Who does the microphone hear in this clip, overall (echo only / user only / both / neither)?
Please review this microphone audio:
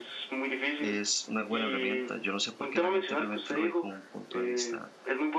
both